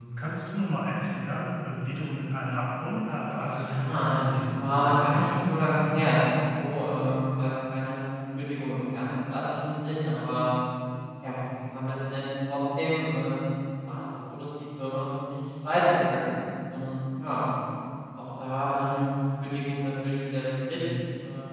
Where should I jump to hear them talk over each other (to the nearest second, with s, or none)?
3 s